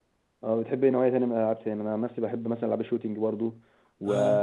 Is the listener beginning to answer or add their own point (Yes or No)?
No